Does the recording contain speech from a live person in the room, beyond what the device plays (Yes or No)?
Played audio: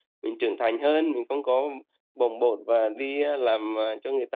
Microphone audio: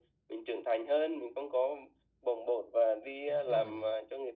Yes